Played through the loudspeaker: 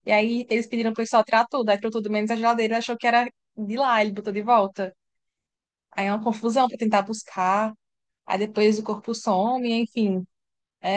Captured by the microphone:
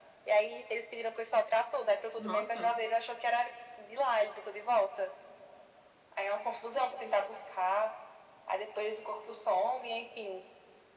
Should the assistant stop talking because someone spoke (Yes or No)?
Yes